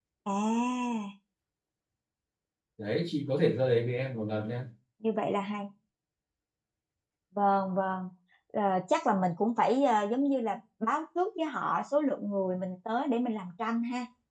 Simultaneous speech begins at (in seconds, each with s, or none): none